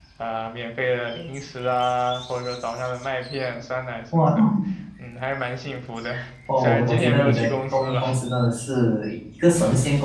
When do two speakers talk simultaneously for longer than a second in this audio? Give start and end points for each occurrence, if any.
6.6-8.0

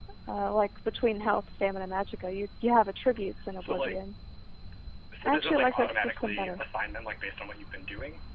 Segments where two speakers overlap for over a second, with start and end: 5.2-6.6

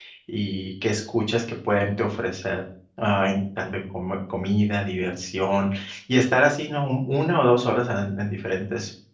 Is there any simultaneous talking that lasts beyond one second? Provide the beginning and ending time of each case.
none

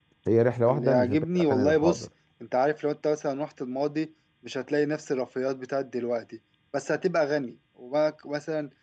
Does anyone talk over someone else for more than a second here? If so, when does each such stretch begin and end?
0.7-2.0

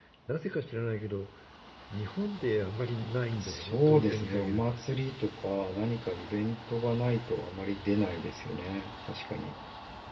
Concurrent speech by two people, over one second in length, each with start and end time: 3.4-4.8

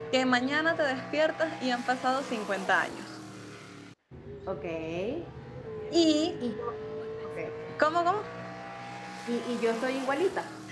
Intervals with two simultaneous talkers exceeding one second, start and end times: none

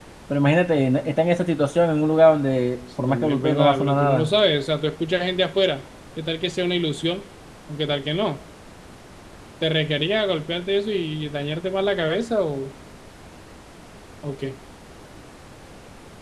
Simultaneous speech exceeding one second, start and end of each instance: 3.0-4.3

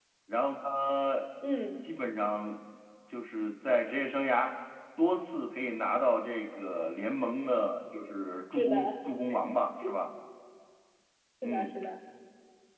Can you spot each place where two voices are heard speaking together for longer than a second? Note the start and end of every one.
none

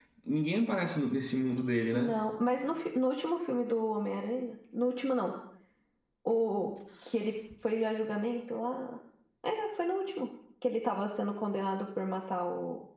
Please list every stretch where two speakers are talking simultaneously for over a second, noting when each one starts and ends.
none

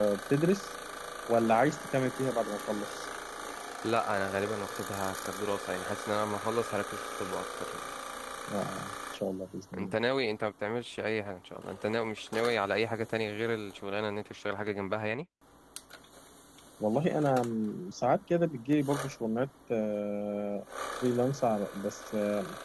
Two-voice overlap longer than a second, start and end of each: none

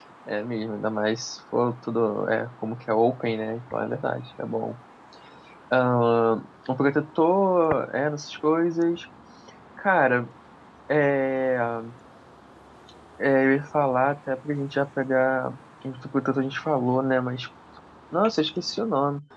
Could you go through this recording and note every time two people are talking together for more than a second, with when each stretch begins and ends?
none

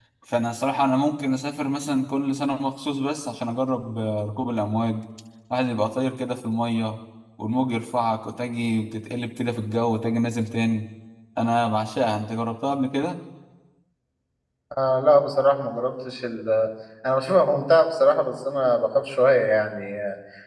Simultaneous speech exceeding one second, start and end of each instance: none

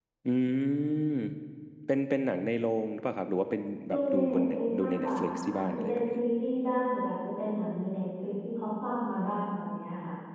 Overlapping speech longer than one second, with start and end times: 3.9-6.2

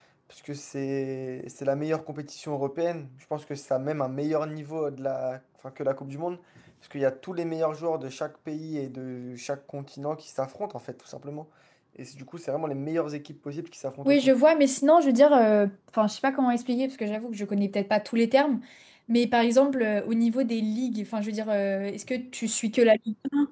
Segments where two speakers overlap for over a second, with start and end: none

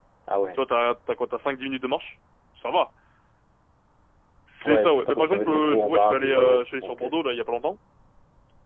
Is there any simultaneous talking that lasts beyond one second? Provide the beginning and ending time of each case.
4.7-7.0

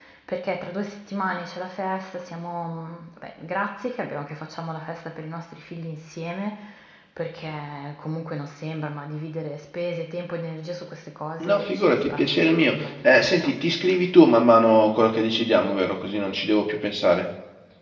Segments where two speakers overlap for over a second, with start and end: 11.4-13.5

